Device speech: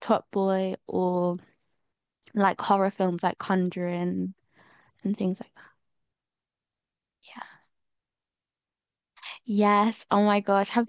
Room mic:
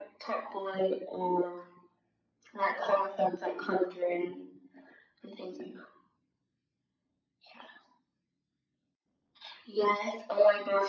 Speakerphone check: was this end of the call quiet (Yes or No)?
Yes